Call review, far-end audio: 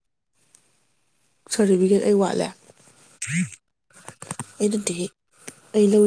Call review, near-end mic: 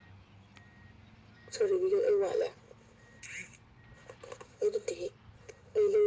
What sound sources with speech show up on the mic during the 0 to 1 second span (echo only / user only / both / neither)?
neither